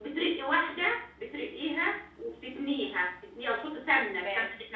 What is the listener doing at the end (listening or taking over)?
listening